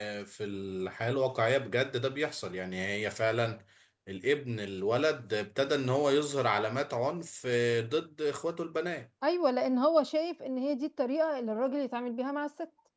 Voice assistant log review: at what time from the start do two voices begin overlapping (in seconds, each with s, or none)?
none